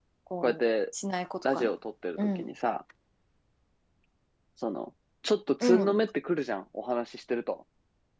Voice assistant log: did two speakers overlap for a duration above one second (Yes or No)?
No